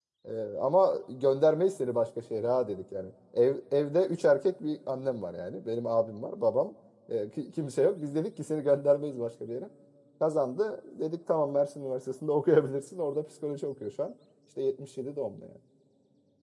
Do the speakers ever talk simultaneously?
No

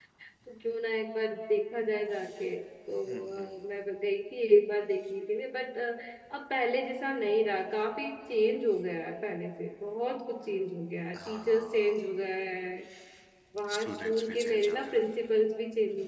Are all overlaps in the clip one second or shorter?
No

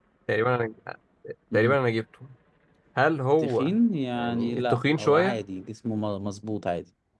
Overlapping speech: Yes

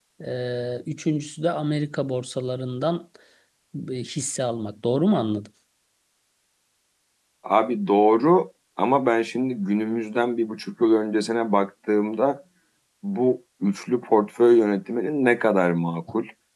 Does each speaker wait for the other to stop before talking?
Yes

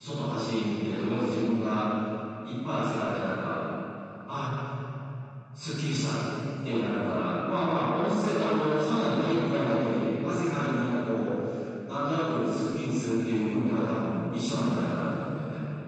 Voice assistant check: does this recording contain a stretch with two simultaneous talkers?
No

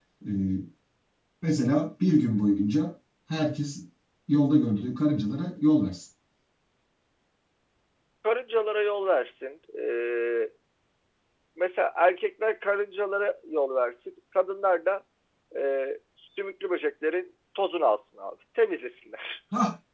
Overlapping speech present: No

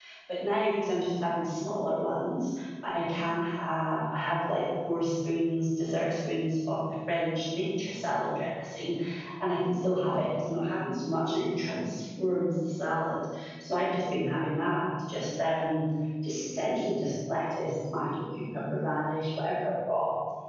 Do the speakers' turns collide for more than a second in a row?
No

